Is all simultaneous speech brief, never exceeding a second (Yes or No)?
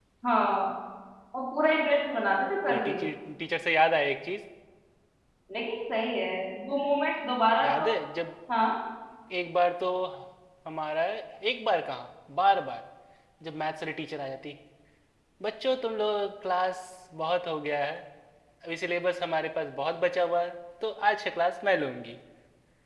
Yes